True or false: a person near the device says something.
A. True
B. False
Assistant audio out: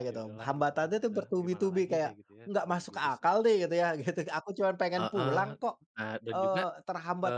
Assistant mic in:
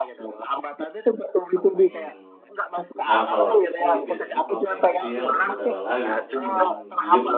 A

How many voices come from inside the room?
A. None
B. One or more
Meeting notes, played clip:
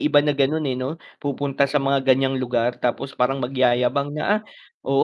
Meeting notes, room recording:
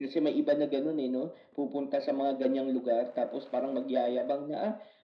A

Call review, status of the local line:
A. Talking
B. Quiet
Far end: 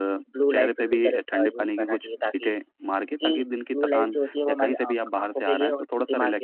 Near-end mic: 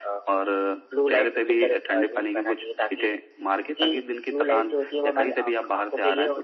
B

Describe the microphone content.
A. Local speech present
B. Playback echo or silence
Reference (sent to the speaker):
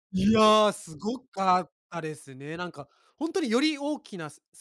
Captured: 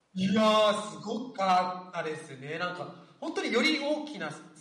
B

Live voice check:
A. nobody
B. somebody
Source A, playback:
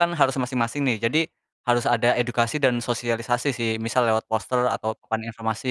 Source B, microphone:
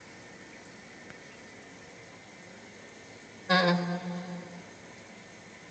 B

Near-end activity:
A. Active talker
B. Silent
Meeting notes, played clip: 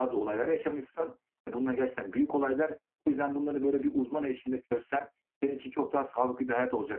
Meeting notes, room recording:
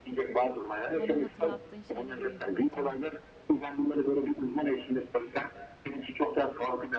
A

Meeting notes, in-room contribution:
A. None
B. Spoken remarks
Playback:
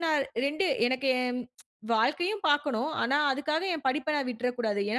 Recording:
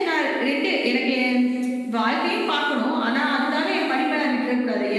A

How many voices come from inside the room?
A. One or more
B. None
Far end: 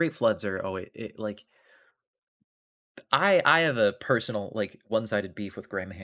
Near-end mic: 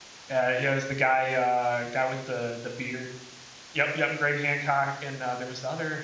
A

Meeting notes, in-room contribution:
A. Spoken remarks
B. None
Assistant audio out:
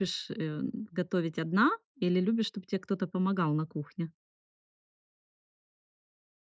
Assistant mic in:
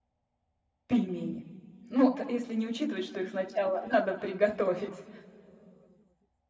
A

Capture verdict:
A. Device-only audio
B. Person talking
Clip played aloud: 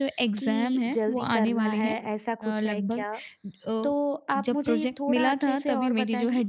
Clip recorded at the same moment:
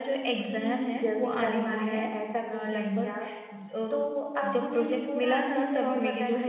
A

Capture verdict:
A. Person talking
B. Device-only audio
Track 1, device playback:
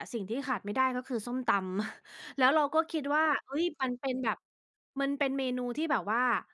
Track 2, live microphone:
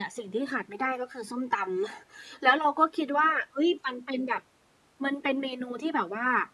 B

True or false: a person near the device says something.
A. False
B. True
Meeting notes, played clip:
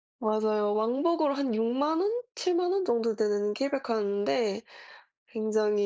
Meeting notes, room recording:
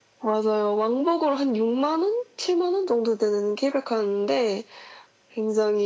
A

